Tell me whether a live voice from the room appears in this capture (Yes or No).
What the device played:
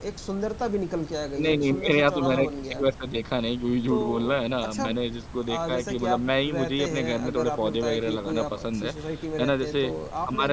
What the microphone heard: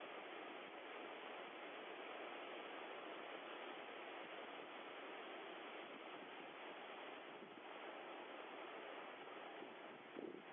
No